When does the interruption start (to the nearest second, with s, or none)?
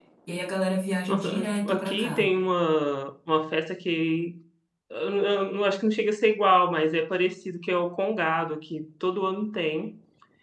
1 s